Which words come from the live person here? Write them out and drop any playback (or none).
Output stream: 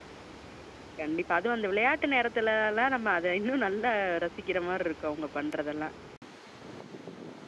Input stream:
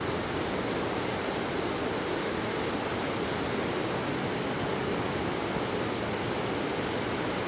none